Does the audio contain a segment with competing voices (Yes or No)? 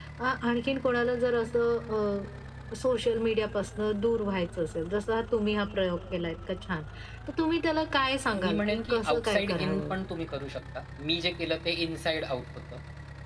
Yes